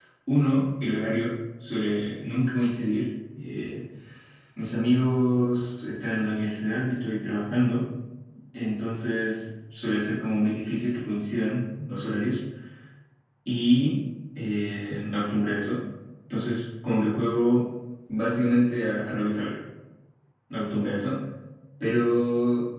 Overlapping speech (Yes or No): No